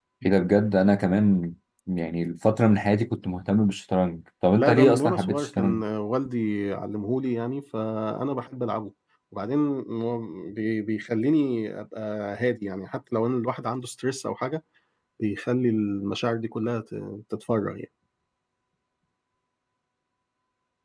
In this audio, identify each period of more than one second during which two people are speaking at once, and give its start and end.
4.5-5.8

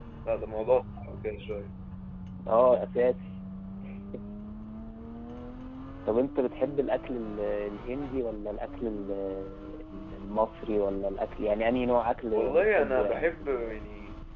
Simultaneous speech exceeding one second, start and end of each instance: 12.3-13.7

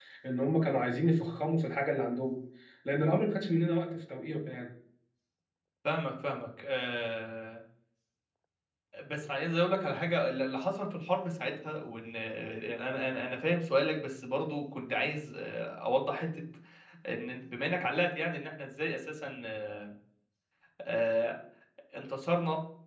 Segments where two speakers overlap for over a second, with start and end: none

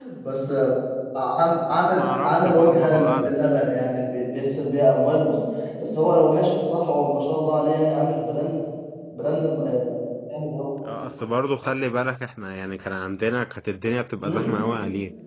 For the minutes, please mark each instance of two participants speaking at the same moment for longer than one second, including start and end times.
1.7-3.7

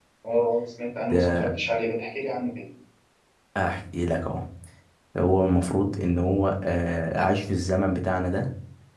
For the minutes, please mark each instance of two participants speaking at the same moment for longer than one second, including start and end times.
none

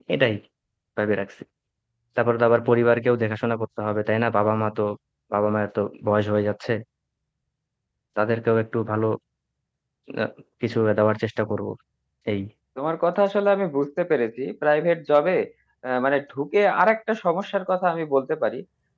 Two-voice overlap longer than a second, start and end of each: none

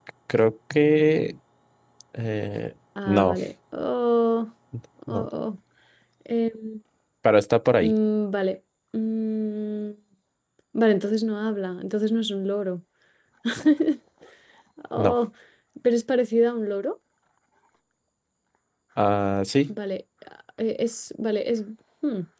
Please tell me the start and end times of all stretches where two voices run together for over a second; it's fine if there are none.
none

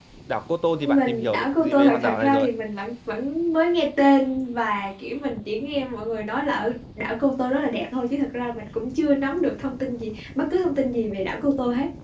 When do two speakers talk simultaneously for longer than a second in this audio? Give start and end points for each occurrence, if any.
0.7-2.5

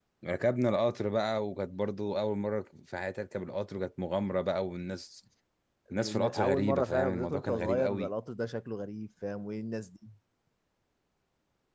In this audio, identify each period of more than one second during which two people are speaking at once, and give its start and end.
5.9-8.1

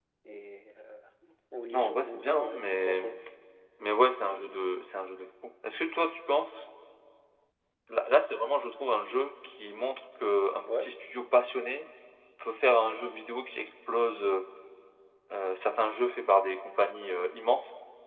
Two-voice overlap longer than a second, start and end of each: 1.7-3.0

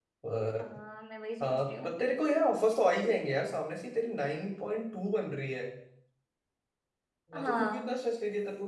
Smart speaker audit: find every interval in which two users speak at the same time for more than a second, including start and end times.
none

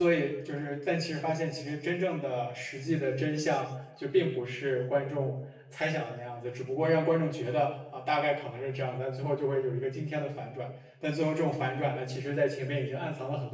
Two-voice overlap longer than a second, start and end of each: none

